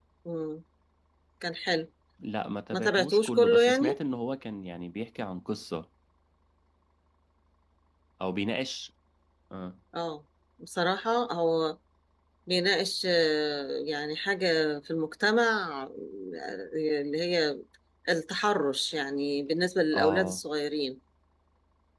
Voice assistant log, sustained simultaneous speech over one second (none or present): present